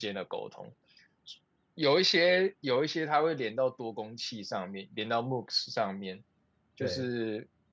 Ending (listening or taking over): listening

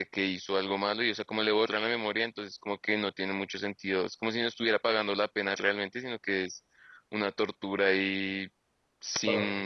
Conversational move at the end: listening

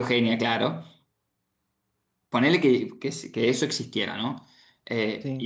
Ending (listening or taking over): listening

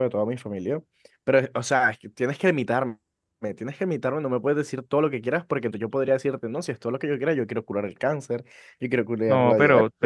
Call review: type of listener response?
taking over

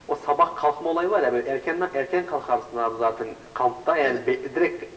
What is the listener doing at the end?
listening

